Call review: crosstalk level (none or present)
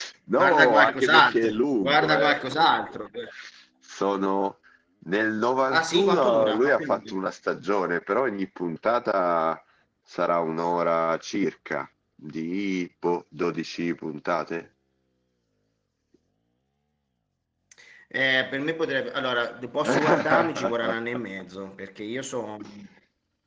present